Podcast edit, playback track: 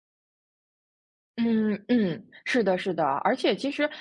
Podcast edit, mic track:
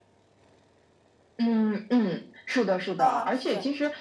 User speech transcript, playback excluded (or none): 嗯，是